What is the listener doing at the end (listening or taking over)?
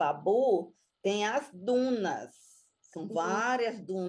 listening